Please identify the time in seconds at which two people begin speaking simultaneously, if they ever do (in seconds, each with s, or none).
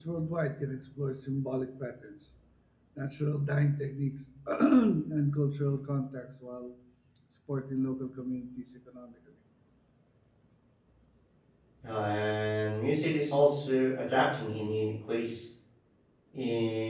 none